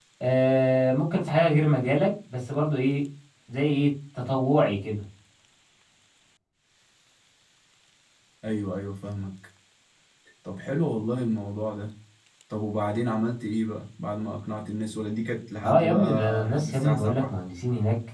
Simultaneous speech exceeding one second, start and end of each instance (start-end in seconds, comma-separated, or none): 15.6-17.3